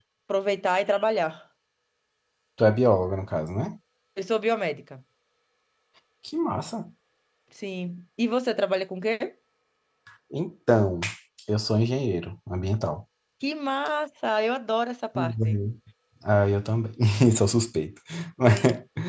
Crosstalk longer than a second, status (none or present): none